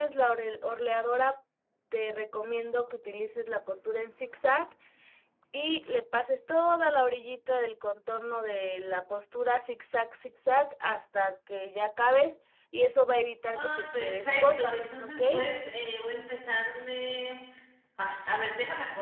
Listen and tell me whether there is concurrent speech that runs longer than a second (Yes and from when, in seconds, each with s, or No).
Yes, from 13.5 s